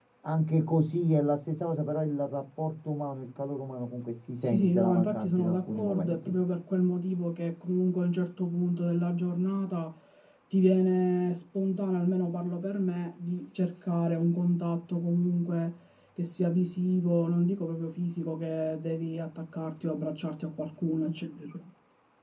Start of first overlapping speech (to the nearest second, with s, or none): 4 s